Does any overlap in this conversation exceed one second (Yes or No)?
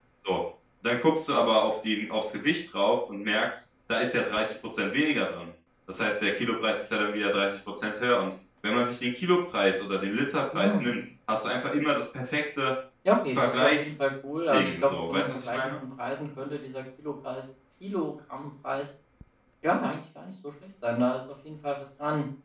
Yes